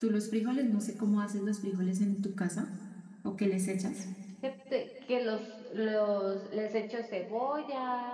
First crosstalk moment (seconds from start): none

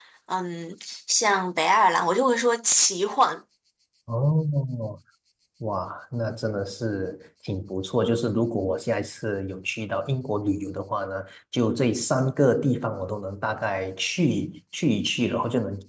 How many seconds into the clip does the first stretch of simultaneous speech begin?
none

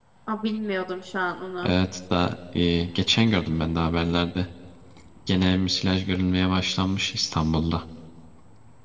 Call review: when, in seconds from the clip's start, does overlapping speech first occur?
none

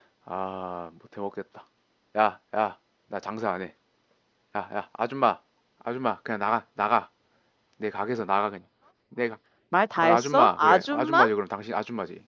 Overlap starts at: 10.0 s

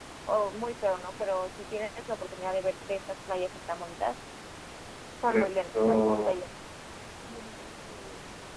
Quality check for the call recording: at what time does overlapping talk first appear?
5.2 s

